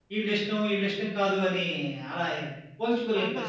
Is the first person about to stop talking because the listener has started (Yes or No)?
Yes